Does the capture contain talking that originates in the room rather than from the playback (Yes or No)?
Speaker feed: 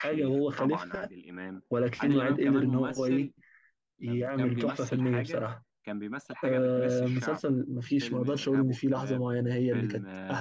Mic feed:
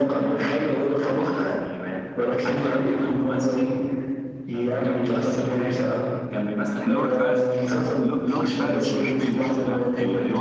Yes